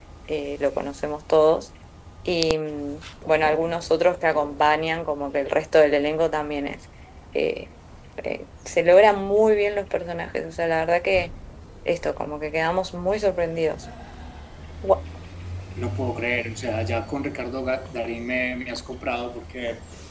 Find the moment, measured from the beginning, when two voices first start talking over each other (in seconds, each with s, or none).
none